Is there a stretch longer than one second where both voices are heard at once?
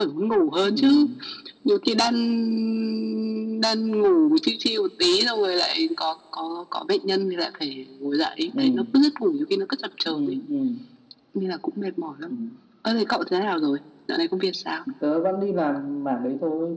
No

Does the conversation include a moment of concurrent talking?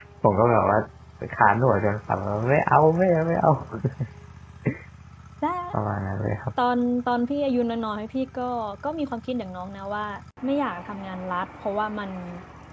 No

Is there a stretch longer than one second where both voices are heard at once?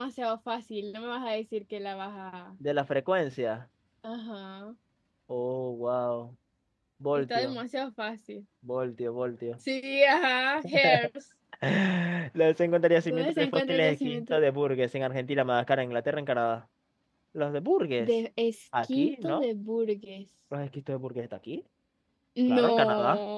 Yes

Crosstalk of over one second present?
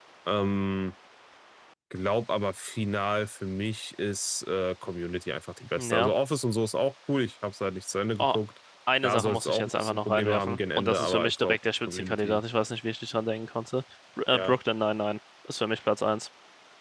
Yes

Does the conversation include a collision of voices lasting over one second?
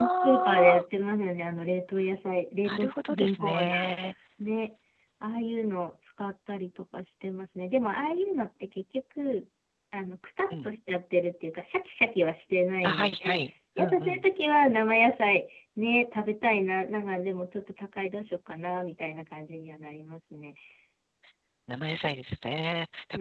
Yes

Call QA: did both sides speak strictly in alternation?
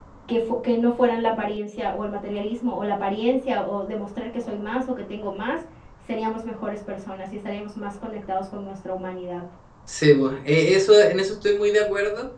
Yes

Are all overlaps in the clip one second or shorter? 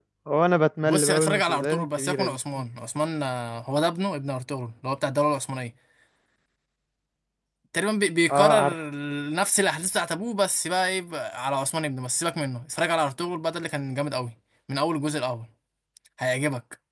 No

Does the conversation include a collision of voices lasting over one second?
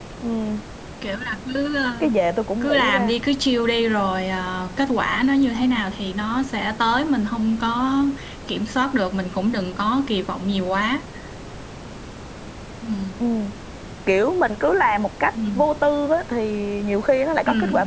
No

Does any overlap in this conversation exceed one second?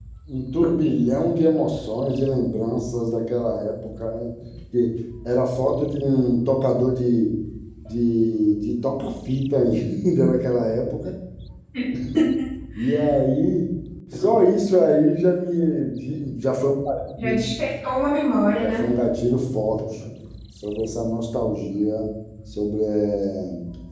No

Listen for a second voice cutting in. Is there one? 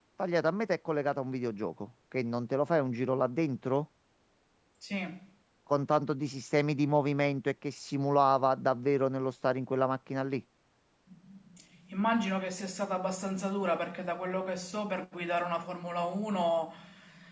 No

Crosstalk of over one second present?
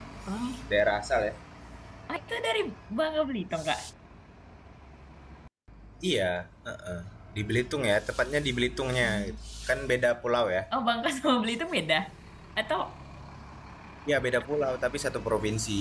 No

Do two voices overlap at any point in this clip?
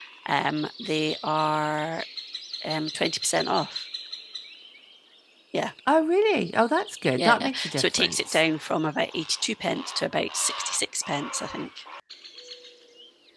Yes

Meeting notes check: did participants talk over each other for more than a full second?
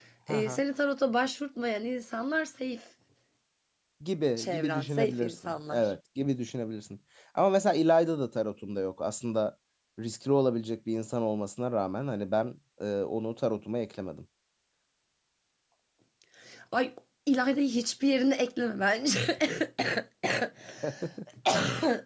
Yes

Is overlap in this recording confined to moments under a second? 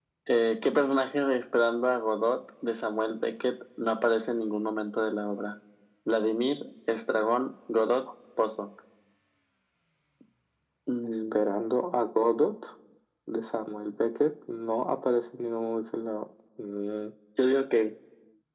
Yes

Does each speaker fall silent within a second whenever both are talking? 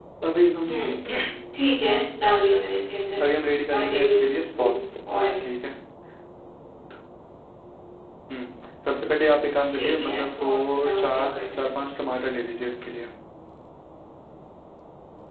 No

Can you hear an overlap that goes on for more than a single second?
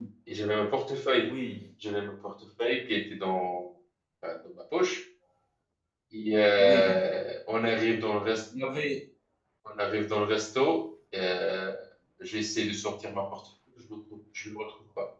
No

